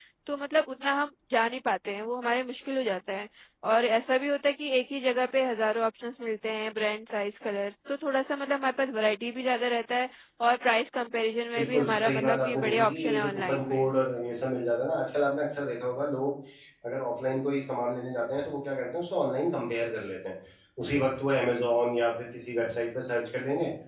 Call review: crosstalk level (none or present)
present